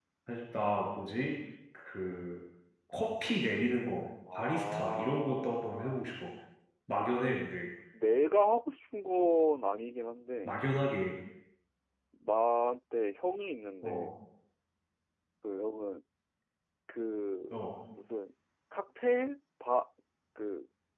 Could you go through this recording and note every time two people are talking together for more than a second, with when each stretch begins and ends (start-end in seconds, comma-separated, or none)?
4.3-6.0